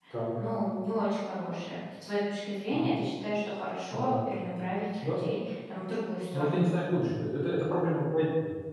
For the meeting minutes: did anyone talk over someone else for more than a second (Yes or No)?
No